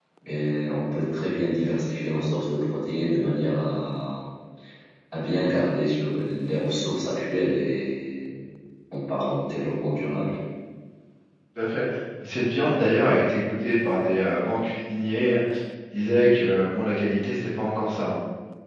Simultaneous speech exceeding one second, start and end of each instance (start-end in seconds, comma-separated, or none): none